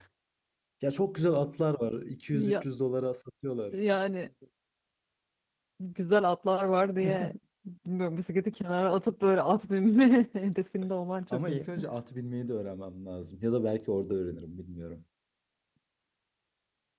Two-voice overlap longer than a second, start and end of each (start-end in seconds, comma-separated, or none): none